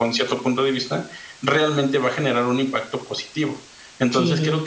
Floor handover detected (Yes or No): No